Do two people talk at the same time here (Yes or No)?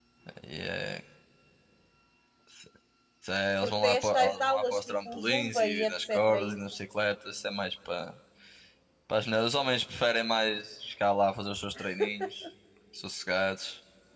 Yes